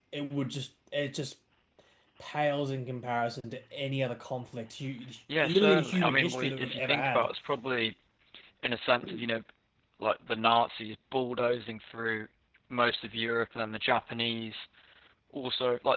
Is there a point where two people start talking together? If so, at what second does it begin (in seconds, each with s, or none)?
5.4 s